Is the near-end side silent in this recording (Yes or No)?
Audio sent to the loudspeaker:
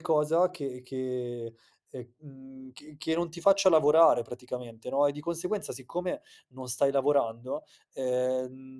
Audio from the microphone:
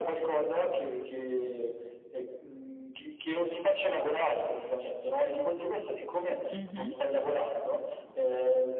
No